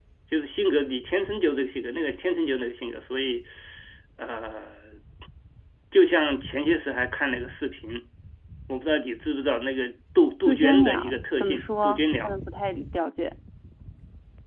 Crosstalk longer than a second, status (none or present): present